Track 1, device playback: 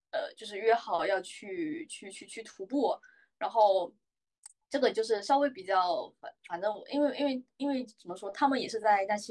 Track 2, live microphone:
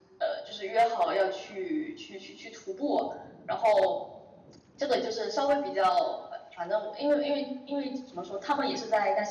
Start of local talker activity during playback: none

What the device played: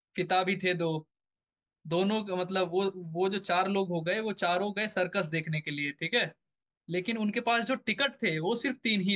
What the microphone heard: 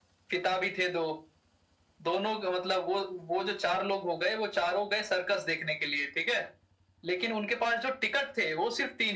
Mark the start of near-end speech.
none

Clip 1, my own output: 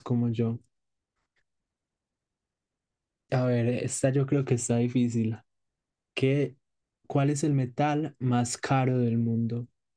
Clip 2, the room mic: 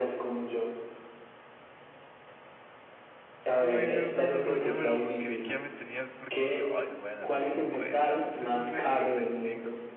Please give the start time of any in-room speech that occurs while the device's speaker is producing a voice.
3.6 s

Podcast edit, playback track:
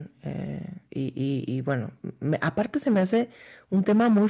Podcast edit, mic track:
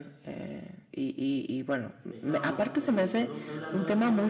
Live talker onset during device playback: 2.1 s

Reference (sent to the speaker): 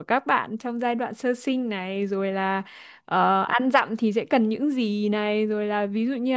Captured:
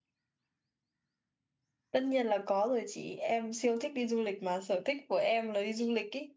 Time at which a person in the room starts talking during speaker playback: 1.9 s

